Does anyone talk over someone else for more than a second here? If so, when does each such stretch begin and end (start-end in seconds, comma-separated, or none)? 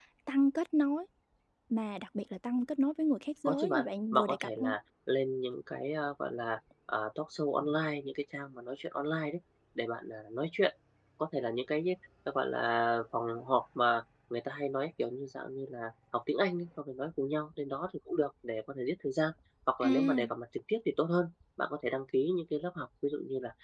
3.5-4.7